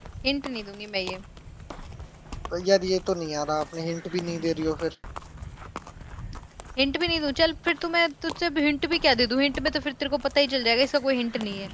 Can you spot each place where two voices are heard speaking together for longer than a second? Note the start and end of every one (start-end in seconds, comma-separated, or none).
none